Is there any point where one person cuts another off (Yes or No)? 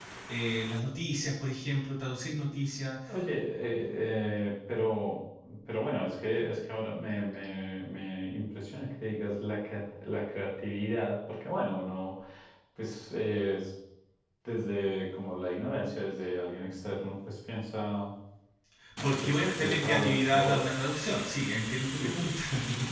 Yes